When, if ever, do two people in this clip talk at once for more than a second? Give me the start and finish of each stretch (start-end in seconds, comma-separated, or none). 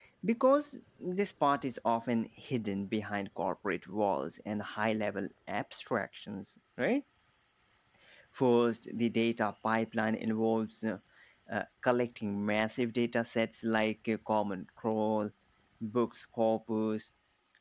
none